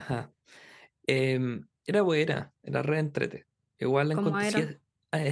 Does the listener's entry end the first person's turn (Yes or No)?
No